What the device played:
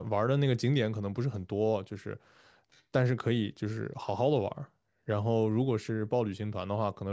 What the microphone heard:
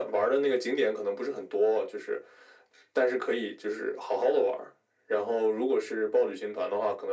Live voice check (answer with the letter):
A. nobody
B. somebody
A